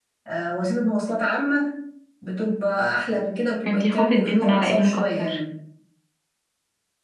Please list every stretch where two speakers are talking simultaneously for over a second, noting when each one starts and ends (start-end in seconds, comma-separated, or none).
3.7-5.4